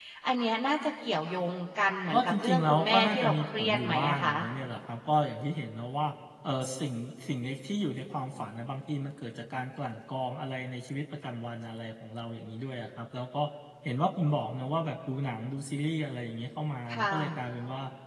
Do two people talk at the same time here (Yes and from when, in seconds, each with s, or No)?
Yes, from 2.1 s